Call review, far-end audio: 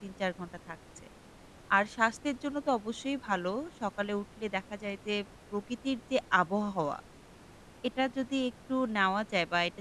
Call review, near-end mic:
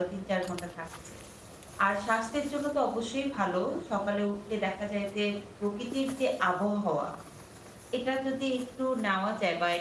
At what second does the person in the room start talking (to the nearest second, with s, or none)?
none